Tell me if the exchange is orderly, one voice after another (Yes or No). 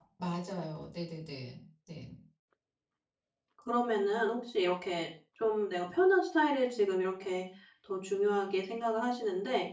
Yes